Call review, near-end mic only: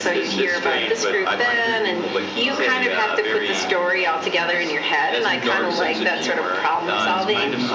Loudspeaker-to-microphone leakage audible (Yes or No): Yes